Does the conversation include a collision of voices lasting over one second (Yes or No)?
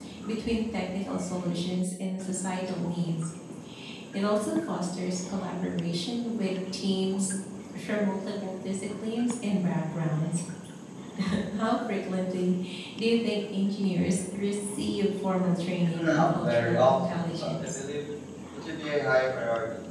Yes